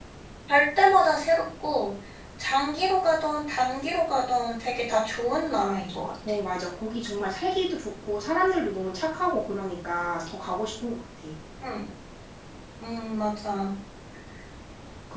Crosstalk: none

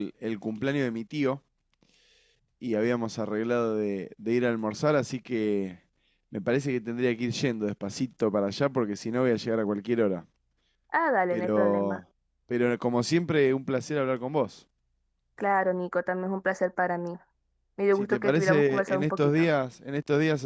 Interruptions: present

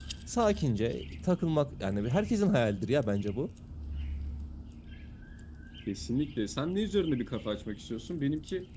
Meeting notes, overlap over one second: none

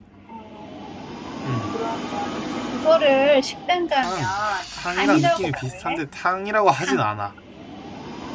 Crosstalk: present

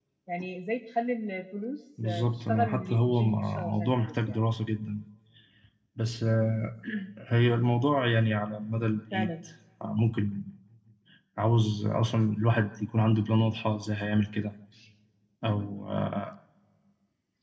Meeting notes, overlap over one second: present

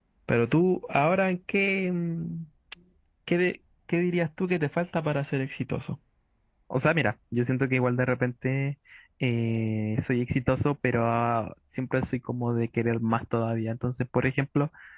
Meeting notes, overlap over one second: none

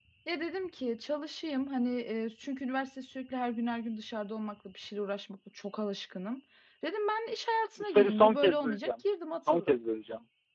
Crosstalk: present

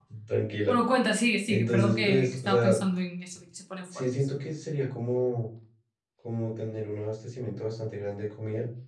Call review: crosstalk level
present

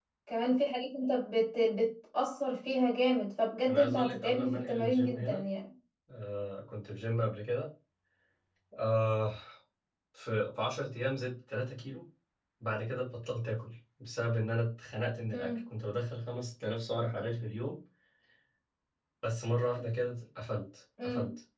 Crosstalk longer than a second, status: present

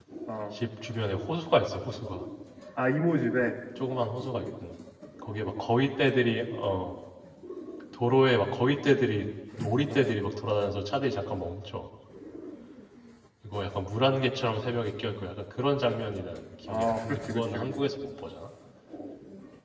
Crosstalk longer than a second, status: present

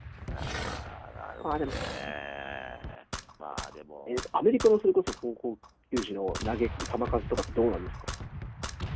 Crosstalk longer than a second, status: none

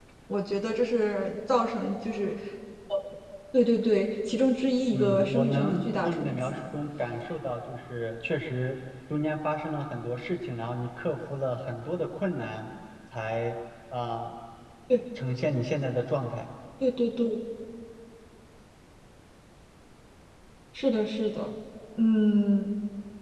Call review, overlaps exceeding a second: present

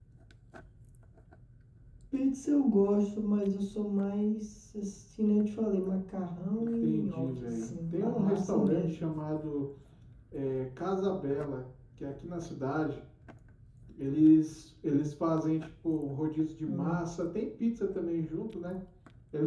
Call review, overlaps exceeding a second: present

